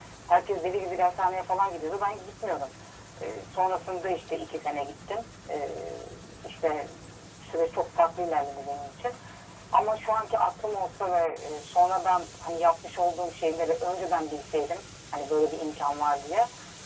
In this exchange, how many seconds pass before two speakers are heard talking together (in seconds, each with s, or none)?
none